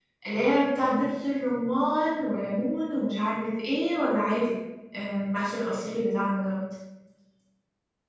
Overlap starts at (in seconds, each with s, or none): none